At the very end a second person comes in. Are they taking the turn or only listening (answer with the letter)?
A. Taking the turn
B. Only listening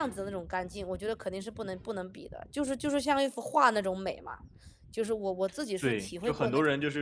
A